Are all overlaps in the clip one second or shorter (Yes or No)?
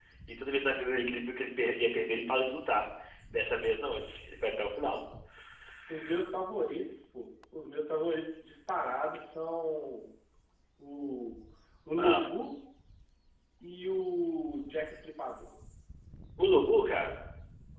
Yes